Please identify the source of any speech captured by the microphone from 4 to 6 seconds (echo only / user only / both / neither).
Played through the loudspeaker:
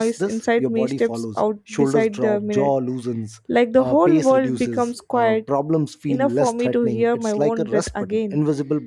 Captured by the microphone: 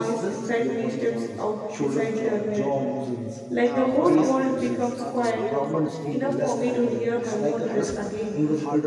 both